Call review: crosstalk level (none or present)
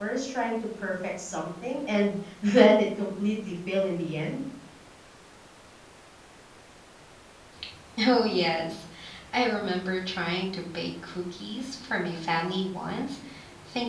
none